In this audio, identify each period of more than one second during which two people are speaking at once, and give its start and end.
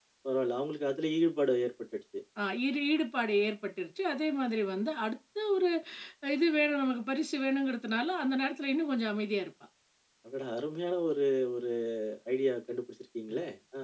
none

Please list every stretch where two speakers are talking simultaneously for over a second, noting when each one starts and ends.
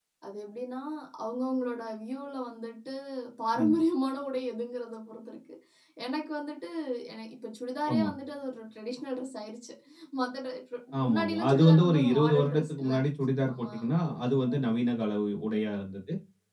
11.0-13.0

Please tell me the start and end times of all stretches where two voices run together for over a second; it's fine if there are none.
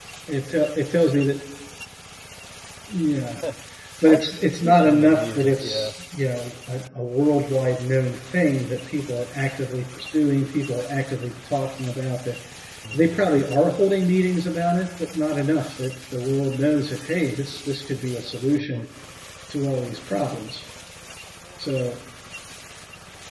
4.1-5.9

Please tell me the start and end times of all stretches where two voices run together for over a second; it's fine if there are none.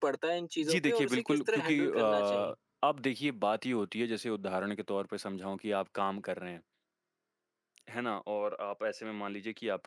0.6-2.5

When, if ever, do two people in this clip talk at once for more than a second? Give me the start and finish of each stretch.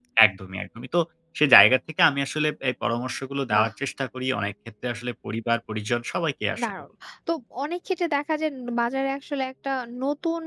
none

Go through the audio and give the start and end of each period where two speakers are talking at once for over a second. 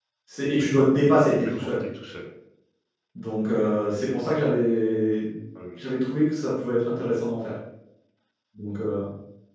none

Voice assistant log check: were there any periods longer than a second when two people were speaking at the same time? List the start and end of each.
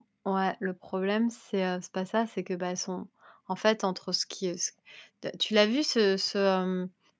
none

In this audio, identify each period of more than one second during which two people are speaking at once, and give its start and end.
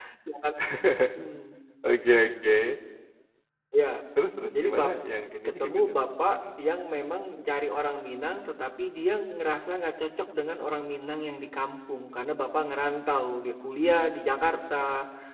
none

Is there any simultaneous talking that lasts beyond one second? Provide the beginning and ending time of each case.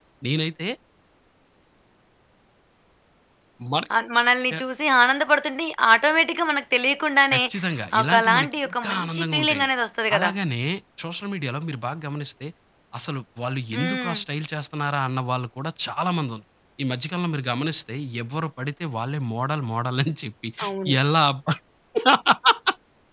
8.0-9.7

